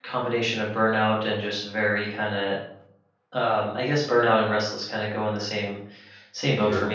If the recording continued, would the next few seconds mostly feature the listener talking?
No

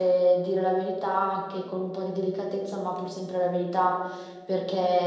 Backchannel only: Yes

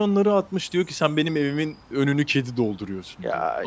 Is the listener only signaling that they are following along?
Yes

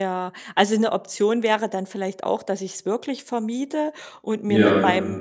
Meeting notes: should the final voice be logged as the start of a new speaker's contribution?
No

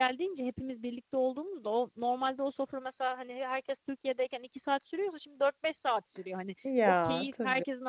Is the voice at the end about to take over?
No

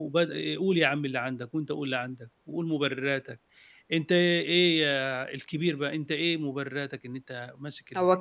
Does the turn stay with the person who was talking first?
No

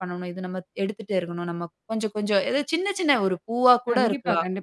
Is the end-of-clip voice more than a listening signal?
Yes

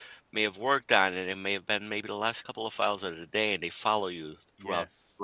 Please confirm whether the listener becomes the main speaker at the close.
No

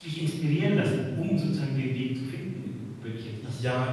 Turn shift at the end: Yes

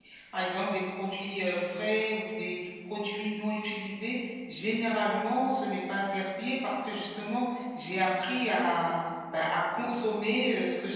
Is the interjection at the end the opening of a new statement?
No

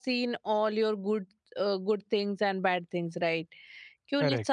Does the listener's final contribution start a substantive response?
No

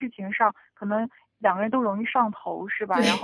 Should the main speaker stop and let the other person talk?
No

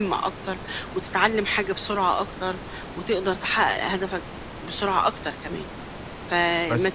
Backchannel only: Yes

